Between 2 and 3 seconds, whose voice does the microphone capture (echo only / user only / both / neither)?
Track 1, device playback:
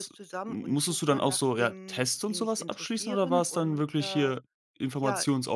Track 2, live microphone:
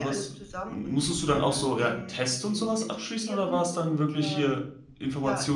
echo only